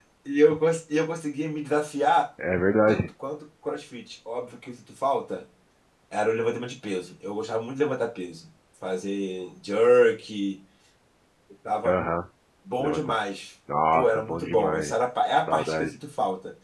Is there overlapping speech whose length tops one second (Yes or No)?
Yes